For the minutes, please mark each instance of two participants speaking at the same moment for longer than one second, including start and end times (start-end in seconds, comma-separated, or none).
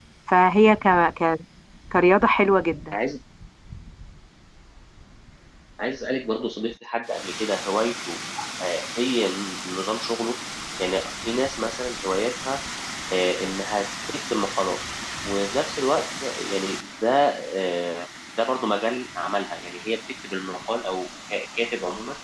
none